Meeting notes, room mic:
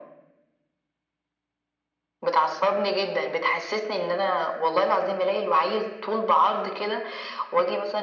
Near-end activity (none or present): none